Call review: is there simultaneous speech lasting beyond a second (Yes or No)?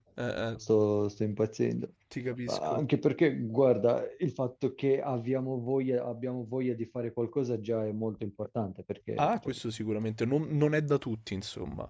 No